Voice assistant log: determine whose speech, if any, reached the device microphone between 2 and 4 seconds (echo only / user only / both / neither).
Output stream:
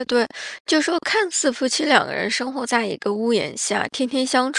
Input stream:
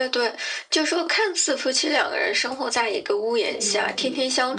both